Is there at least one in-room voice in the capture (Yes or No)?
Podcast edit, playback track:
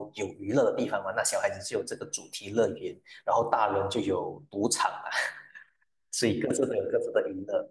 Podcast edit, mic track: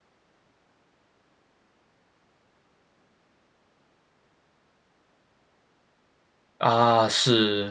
Yes